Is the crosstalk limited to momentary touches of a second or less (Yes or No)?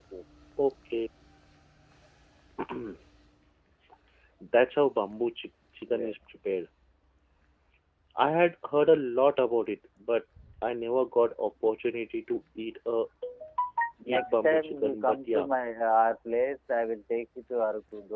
No